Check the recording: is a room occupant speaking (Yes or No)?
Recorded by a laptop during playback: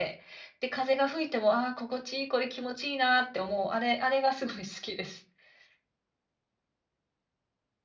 Yes